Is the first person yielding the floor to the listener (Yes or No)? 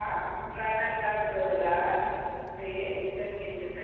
No